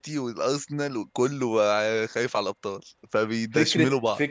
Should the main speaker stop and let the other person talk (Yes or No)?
Yes